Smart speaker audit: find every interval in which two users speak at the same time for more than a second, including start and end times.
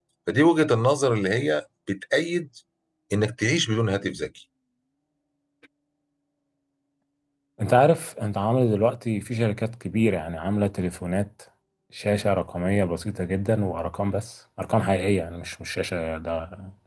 none

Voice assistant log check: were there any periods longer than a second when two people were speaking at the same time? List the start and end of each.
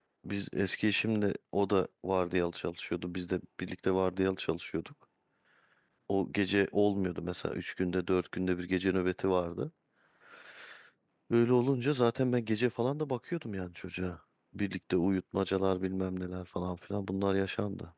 none

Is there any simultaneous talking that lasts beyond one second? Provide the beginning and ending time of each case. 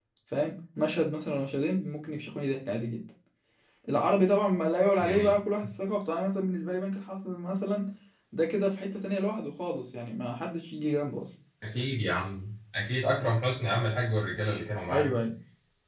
none

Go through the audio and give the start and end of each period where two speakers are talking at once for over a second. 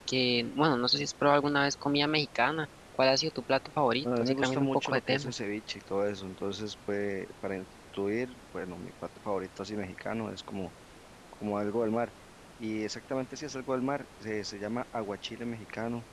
4.0-5.3

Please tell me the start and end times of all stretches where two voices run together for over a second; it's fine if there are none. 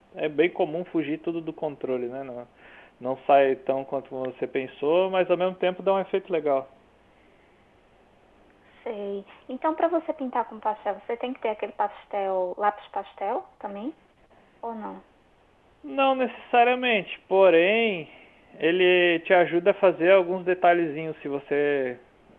none

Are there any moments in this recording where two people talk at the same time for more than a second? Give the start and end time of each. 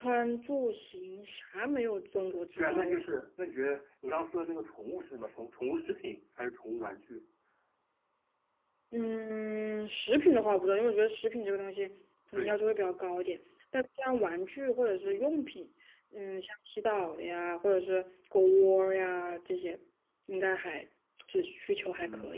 none

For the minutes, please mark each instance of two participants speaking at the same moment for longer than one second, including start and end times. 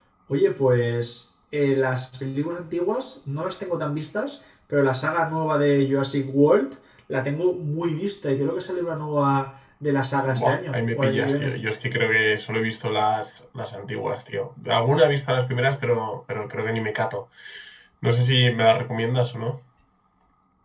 10.4-11.6

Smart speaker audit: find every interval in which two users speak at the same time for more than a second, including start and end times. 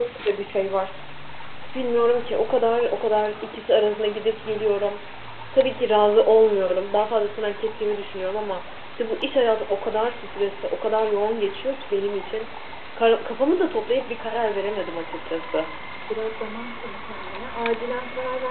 none

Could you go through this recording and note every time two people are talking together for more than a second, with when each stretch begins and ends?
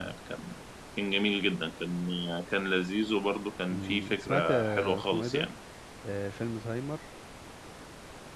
3.7-5.5

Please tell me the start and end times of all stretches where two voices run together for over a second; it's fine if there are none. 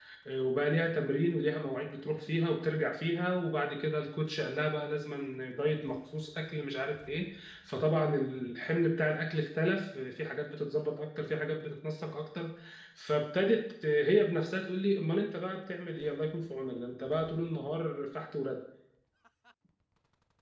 none

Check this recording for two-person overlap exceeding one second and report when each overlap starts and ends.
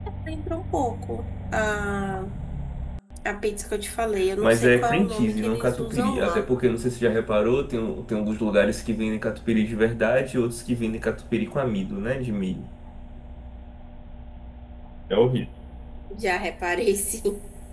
4.4-6.5

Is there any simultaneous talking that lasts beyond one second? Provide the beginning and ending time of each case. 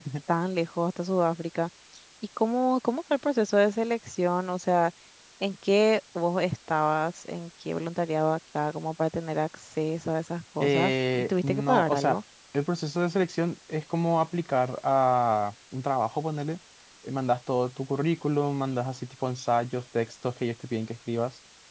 10.6-12.2

